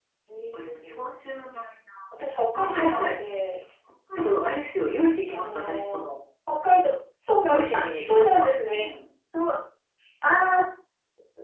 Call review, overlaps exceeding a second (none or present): present